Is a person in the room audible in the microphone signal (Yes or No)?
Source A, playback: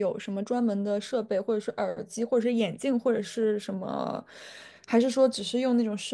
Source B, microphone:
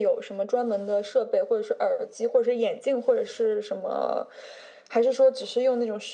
No